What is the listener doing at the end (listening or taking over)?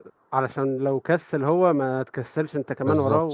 taking over